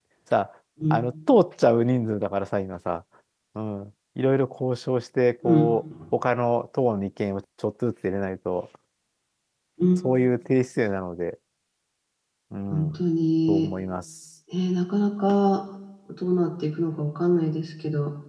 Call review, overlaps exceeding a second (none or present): none